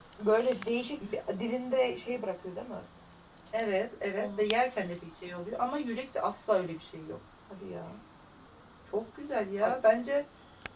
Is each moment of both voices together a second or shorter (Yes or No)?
Yes